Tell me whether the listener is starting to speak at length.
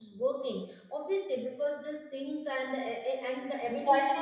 Yes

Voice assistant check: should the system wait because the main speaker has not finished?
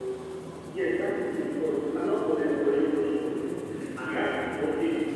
Yes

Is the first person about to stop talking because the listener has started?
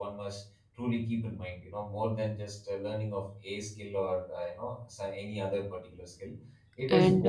No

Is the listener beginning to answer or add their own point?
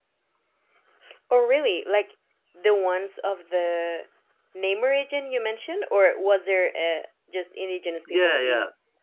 Yes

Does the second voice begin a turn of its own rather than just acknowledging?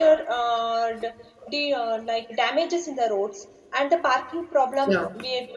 No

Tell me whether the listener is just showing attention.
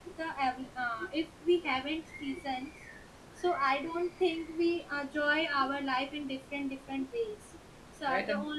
No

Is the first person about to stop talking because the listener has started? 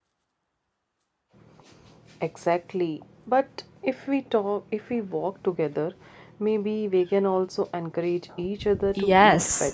Yes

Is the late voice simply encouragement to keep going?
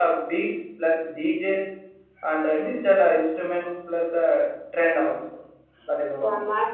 No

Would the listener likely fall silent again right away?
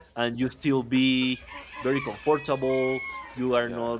Yes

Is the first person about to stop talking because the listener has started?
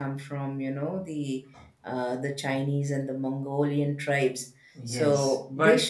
Yes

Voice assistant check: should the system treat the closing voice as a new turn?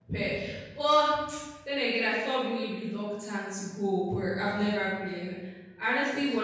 No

